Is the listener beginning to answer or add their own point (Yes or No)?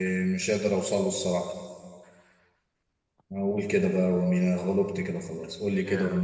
Yes